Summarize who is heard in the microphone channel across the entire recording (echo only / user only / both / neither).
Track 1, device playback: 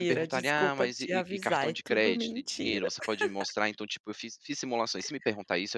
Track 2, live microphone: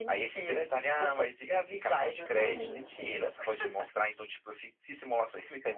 both